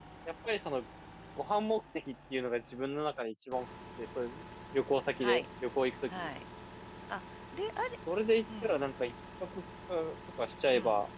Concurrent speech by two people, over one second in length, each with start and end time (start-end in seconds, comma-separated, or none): none